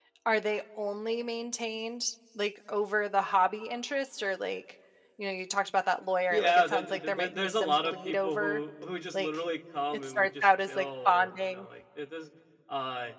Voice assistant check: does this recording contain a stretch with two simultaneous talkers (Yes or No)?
Yes